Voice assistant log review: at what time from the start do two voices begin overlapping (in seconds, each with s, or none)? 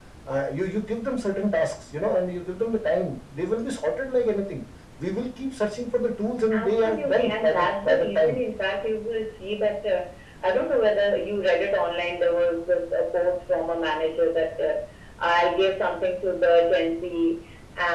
6.5 s